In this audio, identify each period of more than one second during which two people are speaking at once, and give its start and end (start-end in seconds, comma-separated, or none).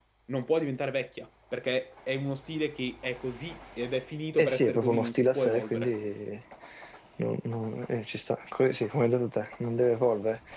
4.4-5.9